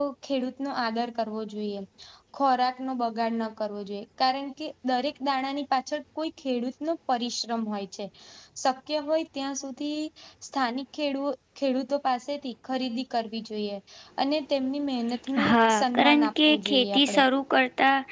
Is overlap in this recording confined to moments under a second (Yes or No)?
No